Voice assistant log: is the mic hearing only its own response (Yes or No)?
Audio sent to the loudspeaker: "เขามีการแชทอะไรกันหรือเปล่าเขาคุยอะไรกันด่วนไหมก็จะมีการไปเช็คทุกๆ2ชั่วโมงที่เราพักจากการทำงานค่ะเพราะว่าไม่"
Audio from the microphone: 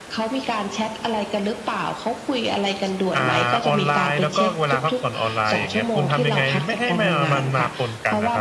No